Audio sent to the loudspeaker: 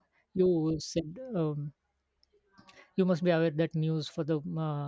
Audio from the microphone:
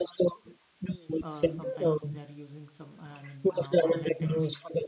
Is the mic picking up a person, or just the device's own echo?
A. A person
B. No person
A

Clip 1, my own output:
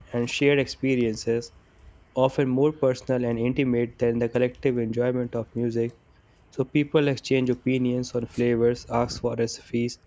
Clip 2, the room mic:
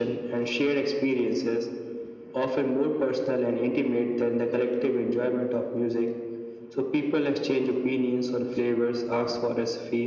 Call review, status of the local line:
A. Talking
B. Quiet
B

